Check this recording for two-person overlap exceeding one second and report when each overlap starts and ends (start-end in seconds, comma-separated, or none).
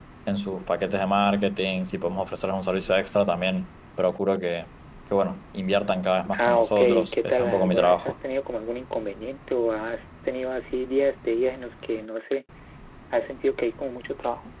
6.4-8.1